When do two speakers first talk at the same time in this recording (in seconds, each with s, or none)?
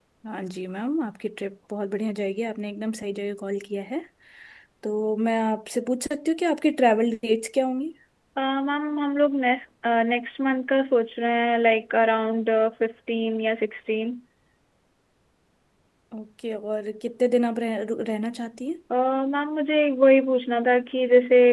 none